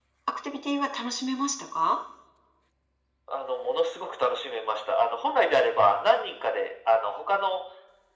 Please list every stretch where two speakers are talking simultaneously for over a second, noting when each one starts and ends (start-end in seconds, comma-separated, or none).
none